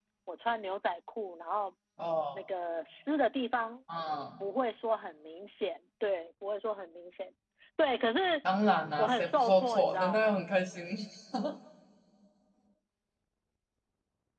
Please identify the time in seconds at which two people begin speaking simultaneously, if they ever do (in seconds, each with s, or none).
9.0 s